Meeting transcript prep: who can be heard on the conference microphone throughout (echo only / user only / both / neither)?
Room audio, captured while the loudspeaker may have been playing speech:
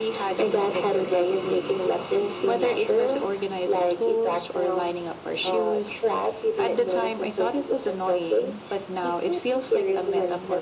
echo only